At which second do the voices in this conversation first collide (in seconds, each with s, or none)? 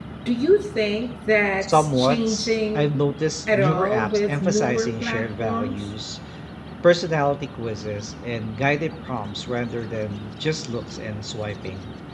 1.6 s